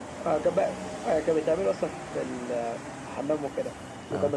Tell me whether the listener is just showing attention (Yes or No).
Yes